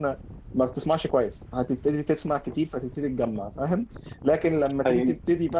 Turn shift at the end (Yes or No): No